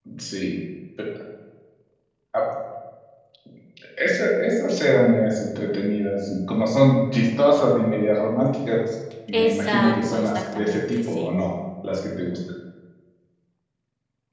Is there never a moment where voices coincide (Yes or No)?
No